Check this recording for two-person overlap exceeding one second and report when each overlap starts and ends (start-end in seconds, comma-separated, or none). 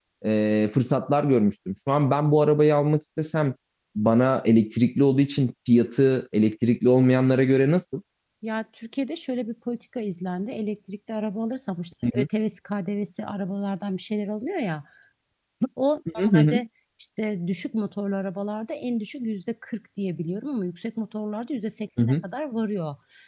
none